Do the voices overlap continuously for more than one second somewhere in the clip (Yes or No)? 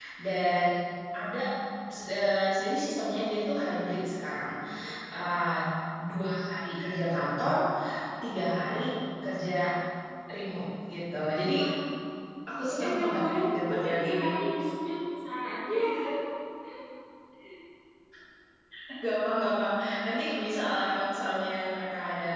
Yes